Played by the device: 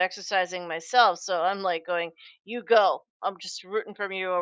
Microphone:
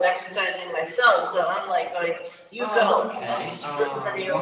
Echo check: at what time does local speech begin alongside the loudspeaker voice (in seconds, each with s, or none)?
2.6 s